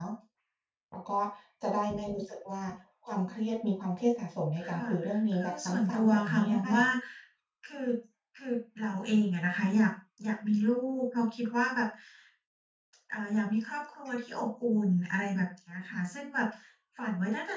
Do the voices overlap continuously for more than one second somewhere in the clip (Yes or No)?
Yes